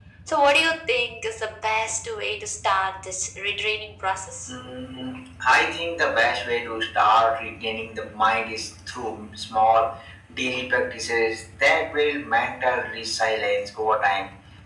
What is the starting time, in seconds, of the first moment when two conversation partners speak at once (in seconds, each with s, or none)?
none